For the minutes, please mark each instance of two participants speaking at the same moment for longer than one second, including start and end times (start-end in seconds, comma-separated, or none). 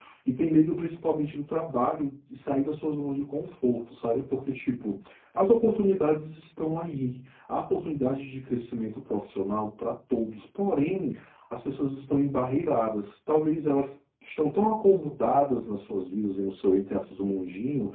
none